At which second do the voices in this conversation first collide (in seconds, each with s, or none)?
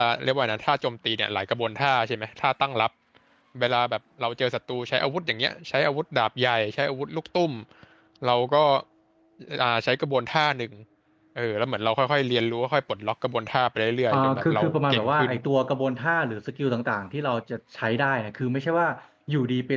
14.1 s